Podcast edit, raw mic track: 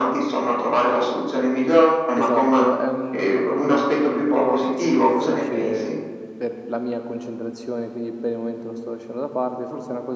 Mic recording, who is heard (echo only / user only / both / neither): both